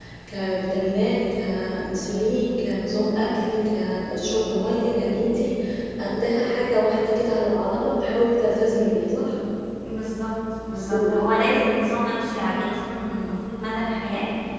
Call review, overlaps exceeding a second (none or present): none